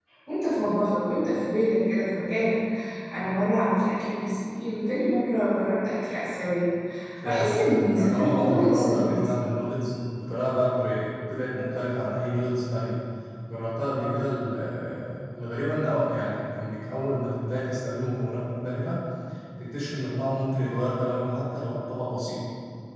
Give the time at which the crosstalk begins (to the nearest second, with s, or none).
7 s